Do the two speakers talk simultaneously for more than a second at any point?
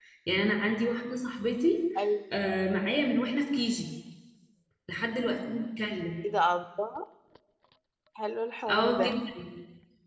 No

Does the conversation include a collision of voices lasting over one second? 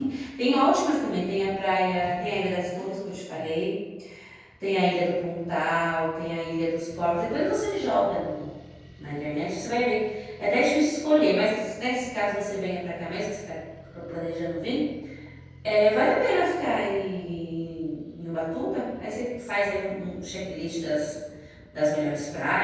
No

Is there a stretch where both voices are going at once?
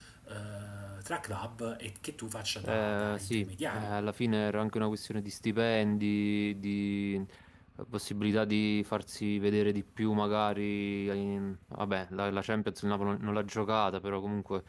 Yes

